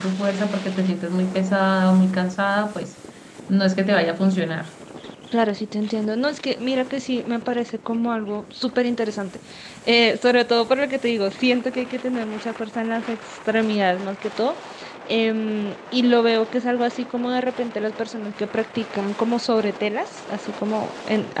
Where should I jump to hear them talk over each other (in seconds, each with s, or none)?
none